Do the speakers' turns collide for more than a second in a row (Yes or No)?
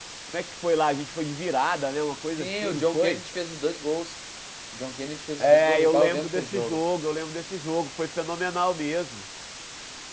Yes